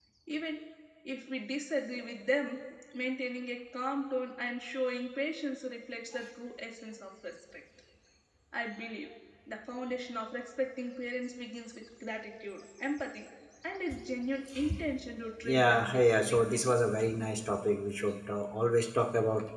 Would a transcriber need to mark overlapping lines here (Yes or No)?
Yes